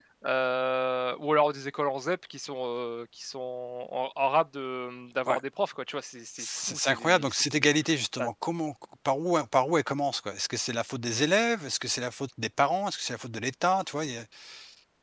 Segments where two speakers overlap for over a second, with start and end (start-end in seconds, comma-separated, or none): 6.4-7.7